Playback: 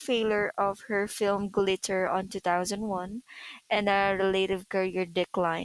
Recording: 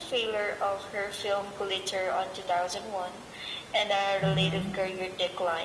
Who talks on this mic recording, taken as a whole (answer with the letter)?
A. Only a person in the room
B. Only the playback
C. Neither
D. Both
D